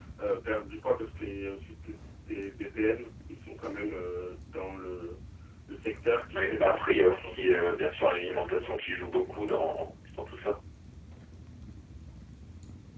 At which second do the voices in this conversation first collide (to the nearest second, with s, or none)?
6 s